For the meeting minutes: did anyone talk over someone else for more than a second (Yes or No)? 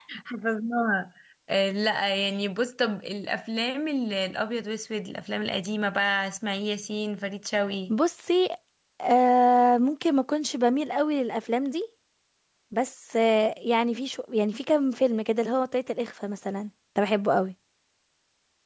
No